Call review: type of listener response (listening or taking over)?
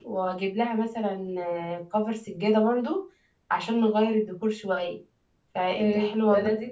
taking over